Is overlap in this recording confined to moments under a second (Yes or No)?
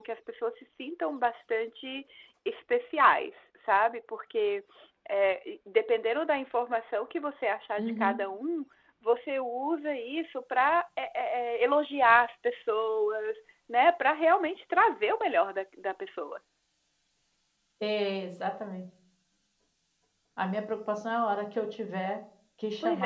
Yes